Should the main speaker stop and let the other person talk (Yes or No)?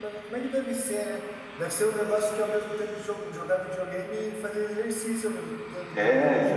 Yes